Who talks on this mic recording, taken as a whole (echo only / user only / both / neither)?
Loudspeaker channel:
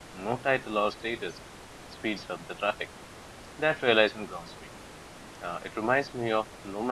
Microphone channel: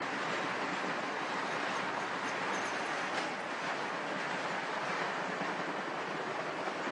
neither